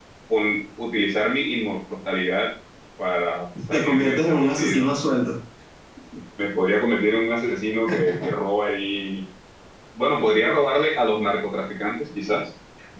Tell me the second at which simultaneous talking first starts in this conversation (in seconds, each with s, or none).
3.7 s